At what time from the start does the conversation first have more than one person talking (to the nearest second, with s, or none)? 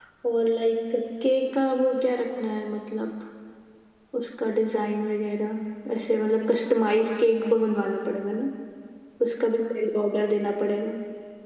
none